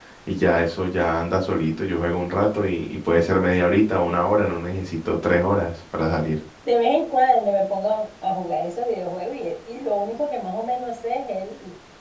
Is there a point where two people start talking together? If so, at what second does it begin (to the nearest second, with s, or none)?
none